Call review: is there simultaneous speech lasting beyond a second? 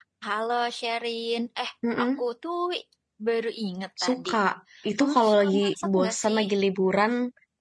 Yes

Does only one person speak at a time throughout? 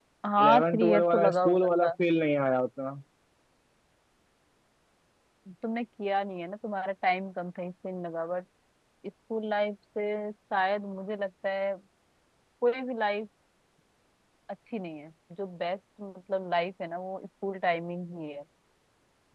No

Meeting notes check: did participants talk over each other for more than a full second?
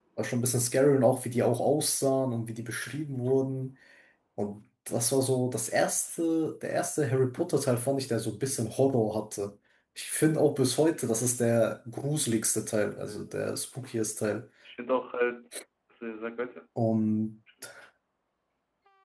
No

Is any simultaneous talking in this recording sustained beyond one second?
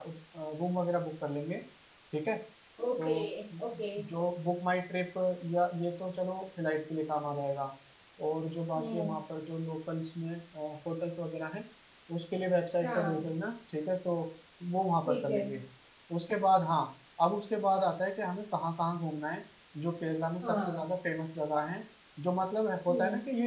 No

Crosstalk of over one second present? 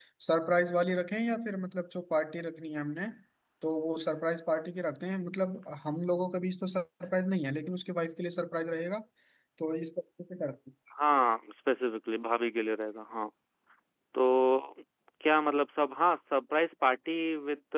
No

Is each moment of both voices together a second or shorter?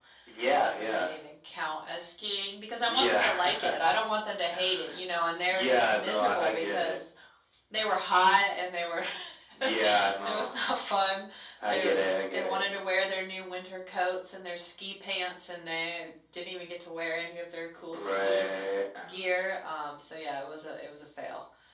No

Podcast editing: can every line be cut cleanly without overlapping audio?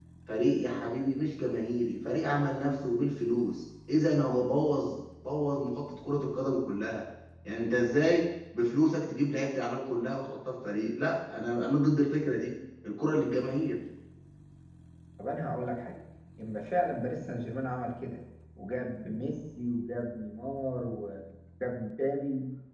Yes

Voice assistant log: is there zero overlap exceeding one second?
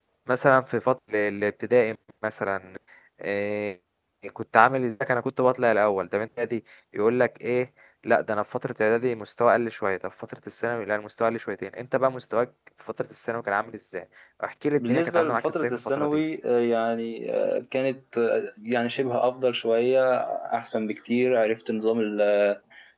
No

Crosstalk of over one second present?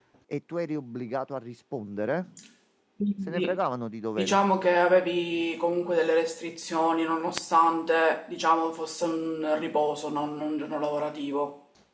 No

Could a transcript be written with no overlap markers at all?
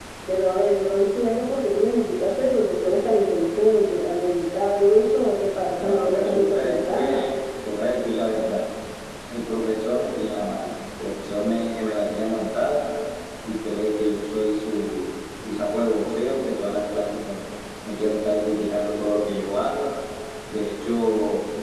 No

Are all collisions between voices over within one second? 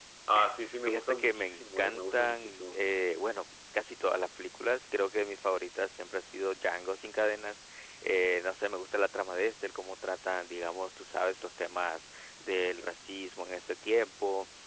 No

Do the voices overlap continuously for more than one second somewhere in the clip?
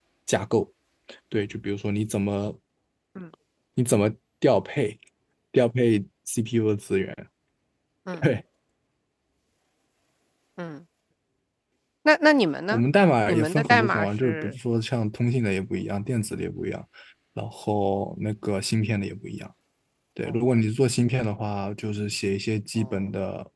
Yes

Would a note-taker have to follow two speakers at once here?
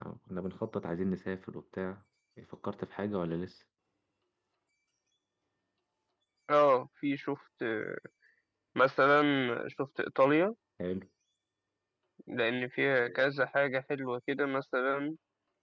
No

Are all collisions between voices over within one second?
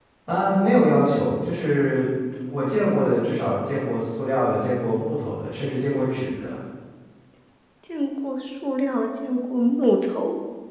Yes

